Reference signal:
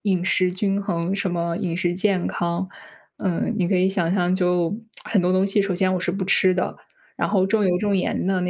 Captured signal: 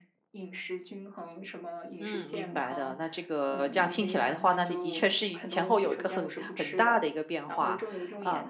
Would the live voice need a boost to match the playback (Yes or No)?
No